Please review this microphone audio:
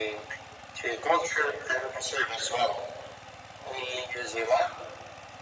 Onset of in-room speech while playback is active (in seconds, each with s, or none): none